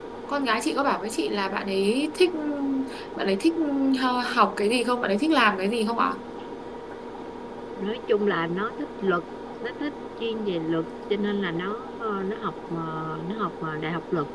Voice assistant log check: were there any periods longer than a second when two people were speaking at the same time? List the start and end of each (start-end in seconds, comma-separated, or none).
none